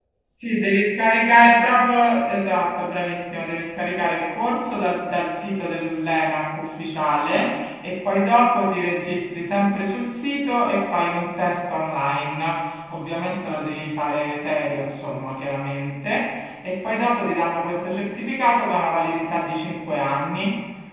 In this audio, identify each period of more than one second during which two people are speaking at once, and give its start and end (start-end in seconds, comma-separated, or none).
none